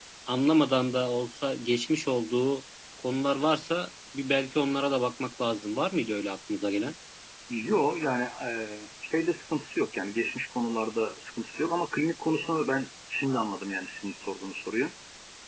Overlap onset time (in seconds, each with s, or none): none